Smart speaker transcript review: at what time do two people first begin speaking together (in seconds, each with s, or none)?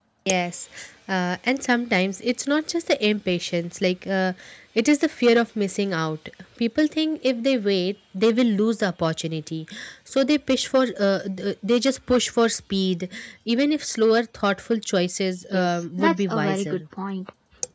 15.5 s